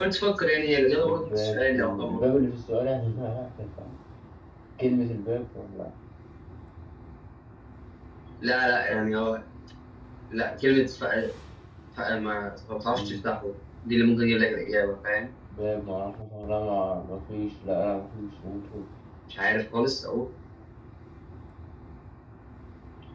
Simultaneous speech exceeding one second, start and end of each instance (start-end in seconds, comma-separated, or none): 1.0-2.2